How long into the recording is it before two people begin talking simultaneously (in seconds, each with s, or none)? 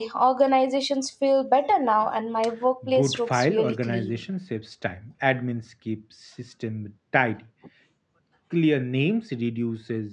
2.8 s